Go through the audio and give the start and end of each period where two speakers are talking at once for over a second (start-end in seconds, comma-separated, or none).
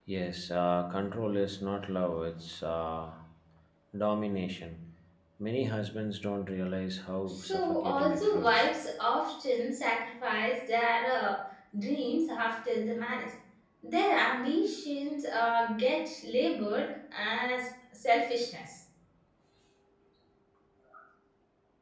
7.2-8.7